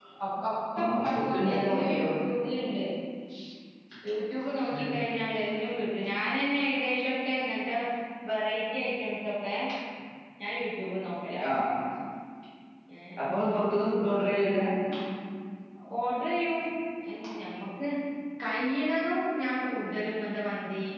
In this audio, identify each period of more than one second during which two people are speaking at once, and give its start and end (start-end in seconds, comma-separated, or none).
0.8-2.1